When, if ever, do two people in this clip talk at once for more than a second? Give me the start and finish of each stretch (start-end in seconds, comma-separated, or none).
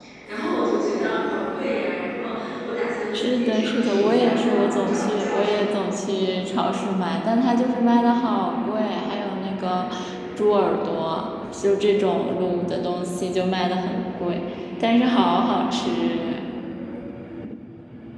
3.1-5.7